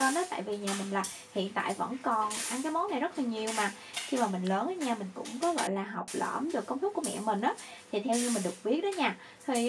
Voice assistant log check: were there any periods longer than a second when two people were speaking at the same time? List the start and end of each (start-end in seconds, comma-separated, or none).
none